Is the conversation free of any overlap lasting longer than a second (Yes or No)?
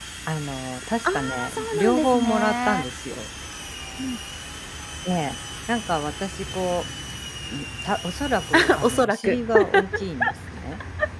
No